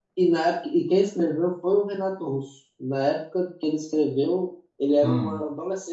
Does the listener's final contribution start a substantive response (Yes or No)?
No